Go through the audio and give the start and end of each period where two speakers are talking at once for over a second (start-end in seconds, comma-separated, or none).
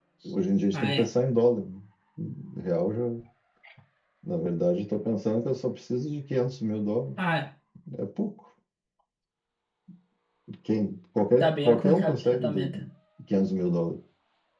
11.4-12.7